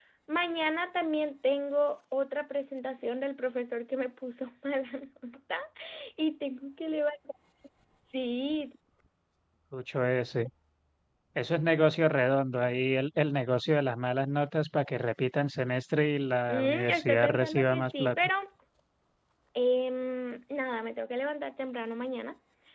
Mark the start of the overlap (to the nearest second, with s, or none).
16 s